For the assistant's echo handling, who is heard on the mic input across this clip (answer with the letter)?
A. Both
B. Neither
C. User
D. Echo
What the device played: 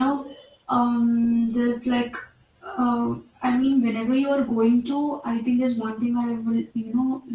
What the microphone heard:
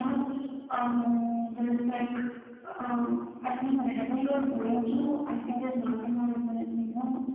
D